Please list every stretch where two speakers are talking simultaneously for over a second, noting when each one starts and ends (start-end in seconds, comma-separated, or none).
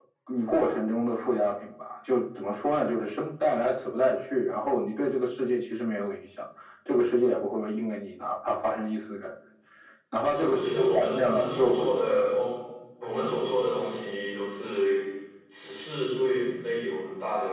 10.2-12.2